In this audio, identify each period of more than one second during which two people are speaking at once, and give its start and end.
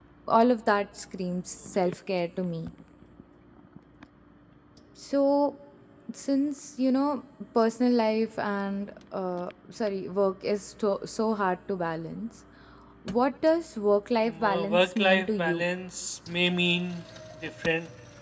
14.3-15.6

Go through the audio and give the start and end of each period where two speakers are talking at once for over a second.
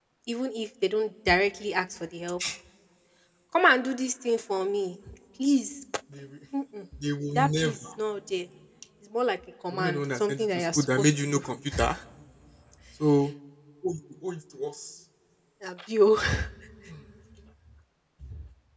9.7-11.4

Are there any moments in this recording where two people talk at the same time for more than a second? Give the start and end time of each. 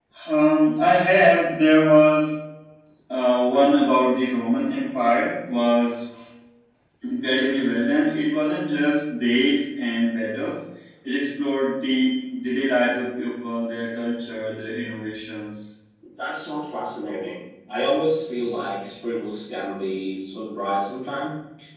none

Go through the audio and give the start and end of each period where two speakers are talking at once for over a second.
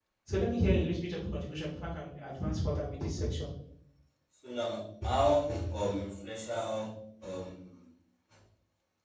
none

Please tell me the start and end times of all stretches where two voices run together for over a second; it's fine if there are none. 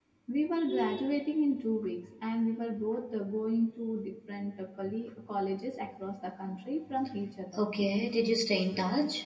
none

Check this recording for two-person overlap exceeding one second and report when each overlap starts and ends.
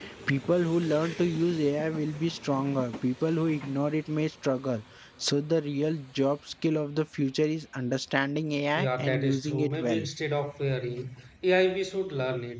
8.8-10.0

